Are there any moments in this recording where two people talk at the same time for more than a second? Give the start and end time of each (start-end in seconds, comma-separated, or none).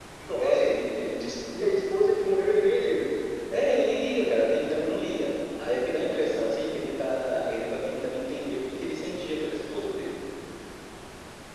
none